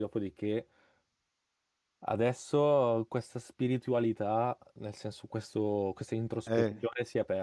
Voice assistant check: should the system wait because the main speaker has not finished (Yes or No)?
Yes